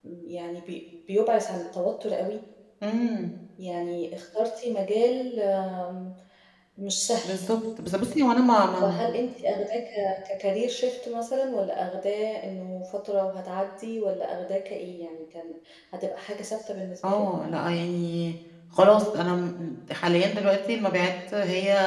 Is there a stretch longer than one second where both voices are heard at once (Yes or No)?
No